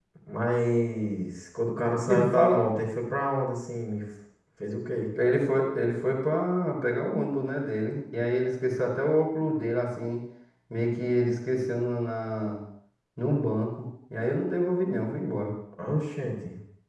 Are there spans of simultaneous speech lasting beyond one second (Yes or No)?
No